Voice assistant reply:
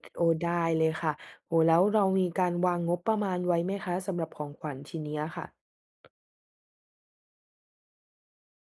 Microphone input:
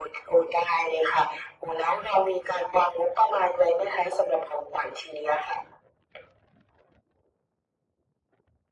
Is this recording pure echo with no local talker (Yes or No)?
Yes